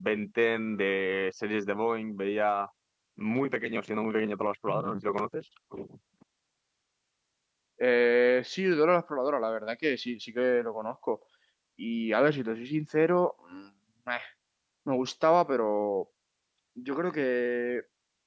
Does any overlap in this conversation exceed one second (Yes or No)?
No